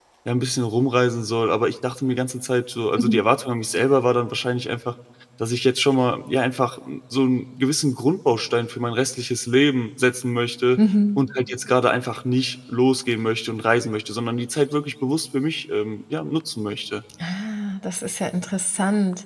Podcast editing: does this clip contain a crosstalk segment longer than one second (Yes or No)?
No